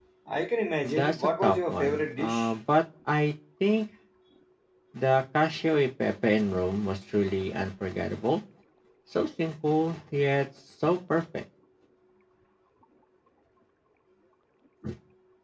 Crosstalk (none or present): present